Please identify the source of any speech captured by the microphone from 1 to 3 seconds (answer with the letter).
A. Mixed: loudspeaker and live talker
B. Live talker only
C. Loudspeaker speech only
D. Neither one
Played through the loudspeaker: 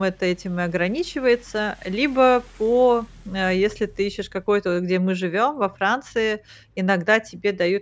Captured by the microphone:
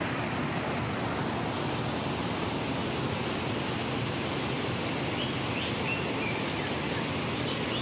D